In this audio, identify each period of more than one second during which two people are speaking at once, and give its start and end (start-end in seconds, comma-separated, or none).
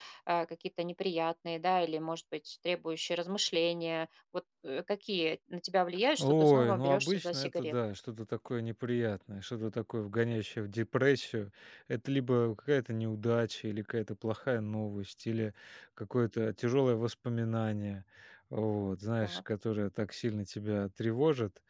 6.2-7.7